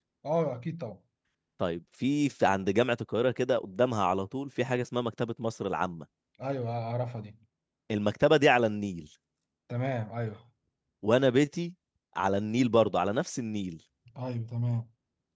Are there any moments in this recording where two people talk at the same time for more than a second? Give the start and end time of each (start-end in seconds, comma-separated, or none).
none